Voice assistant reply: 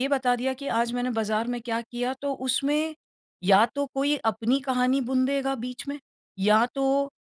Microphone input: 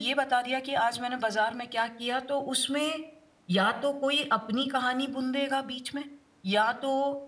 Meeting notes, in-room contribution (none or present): none